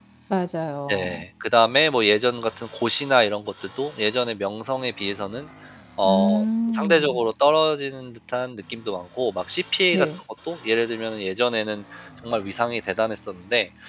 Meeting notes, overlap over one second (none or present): none